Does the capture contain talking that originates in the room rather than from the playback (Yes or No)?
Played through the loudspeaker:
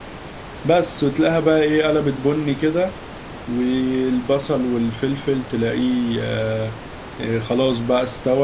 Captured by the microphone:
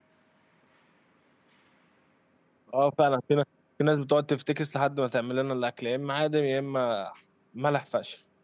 Yes